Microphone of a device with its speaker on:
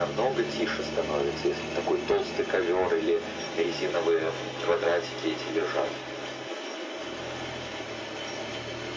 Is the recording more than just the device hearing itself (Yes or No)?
No